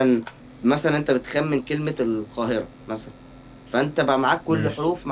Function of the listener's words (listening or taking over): listening